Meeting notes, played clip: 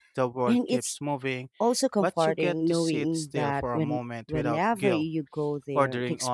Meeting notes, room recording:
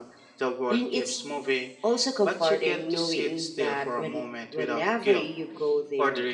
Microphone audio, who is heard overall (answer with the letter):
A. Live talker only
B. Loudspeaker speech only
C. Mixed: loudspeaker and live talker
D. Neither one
B